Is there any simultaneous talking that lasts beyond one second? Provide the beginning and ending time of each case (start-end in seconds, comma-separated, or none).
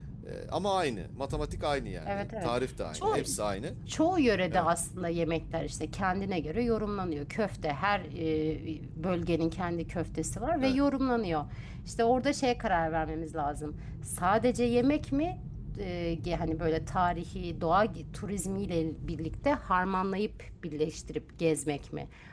none